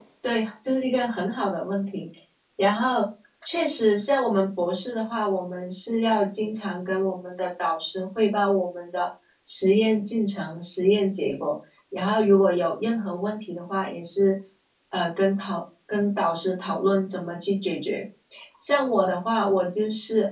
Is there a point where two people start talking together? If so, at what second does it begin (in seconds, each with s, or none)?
none